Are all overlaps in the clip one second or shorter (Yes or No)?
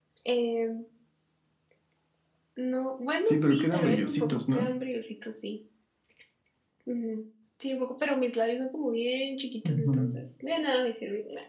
No